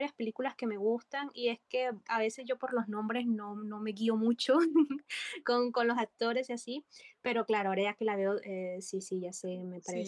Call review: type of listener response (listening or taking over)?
taking over